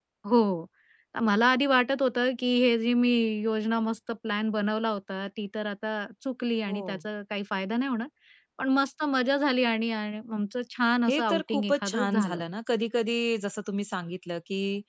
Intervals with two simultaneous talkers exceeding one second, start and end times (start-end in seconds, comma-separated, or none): 11.1-12.4